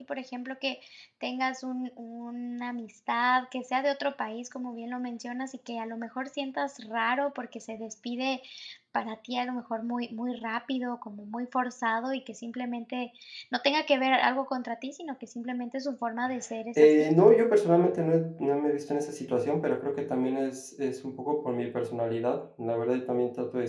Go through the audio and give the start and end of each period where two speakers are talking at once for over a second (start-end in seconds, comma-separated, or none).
none